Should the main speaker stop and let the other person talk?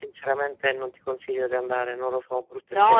Yes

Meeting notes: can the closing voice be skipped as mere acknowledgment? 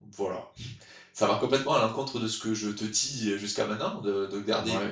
No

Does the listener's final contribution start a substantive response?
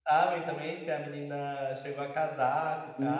Yes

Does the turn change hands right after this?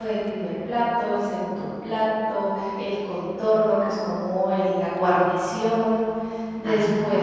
No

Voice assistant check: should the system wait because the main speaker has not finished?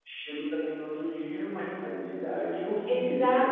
No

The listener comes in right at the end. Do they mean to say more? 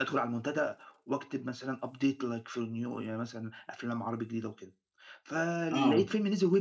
No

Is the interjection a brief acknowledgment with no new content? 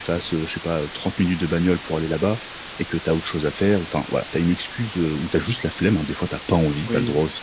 No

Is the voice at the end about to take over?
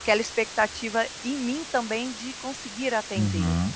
Yes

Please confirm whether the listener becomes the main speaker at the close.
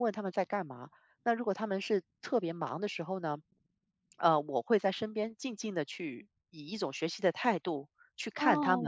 Yes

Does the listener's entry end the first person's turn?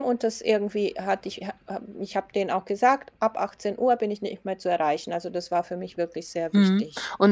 Yes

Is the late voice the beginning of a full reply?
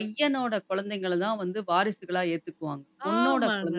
Yes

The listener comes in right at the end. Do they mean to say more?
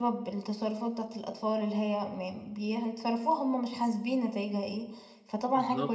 No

